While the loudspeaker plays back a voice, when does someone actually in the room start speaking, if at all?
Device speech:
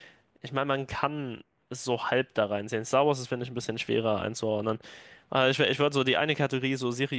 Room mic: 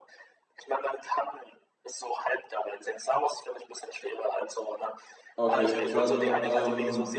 5.4 s

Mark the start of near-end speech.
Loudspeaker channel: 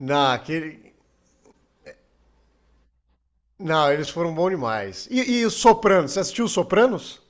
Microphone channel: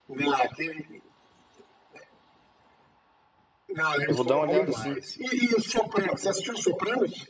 4.1 s

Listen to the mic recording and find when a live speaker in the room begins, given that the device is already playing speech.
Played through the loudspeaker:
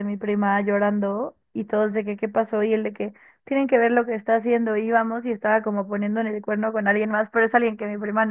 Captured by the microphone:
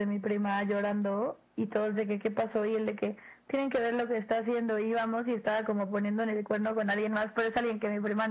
none

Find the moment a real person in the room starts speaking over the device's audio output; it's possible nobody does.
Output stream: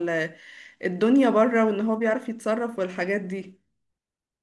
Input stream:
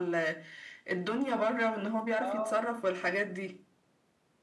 2.2 s

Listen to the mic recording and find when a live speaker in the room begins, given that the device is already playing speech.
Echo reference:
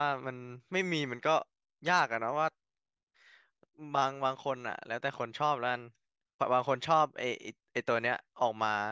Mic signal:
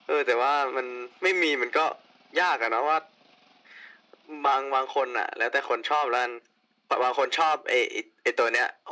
none

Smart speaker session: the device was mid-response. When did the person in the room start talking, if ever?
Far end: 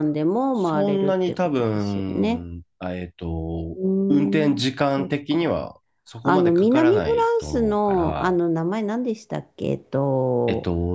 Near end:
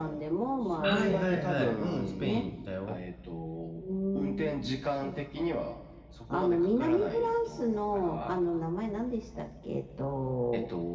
0.8 s

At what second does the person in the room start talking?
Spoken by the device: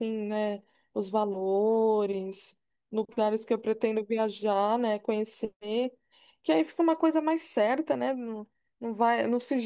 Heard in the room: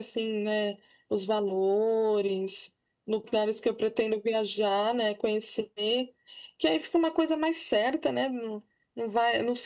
none

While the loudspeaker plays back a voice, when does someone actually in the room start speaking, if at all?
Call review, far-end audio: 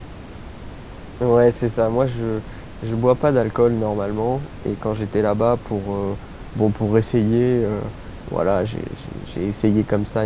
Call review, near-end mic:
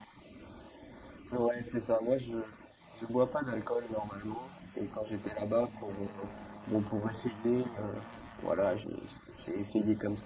none

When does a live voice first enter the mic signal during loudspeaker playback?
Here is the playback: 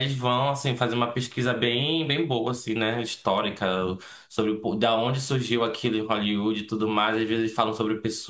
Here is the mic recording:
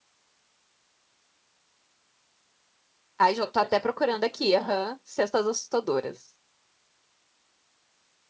3.2 s

